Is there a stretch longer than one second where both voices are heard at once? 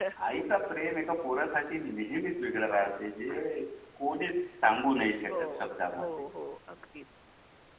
No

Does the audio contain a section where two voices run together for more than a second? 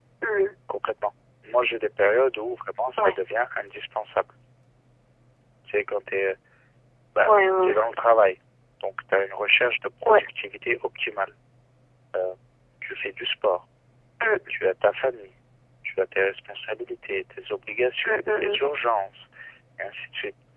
No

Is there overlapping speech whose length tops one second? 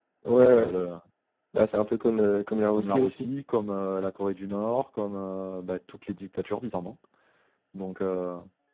No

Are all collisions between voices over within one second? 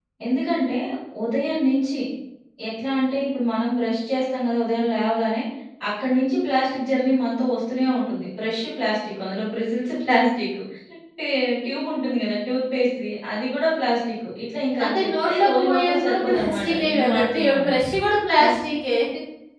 No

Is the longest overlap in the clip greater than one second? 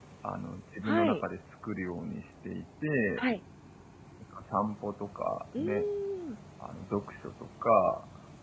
No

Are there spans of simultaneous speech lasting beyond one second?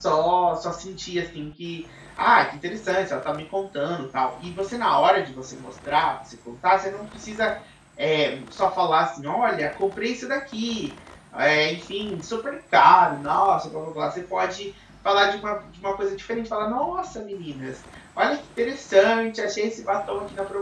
No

